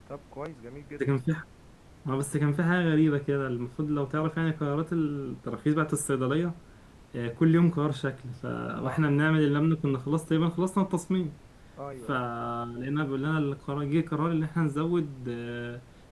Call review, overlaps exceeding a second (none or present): none